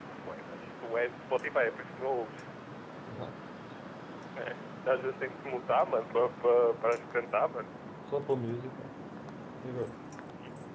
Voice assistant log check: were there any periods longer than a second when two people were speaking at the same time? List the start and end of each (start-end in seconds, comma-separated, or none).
none